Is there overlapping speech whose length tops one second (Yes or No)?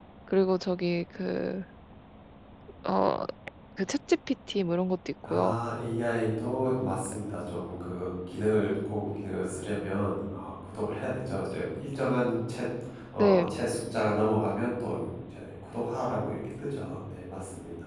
No